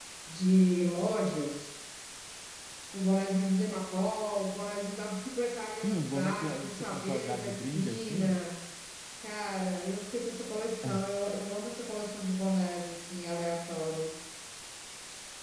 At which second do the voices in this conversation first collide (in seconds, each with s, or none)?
5.8 s